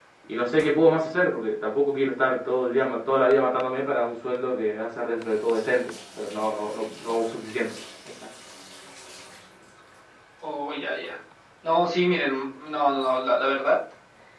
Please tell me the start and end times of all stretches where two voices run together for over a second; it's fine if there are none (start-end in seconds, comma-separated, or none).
none